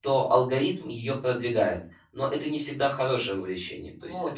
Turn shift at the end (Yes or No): Yes